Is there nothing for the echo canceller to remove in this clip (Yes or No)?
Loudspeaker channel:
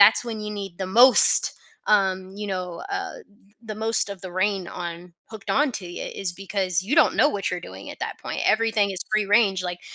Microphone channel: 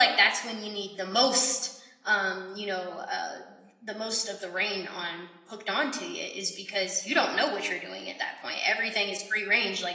No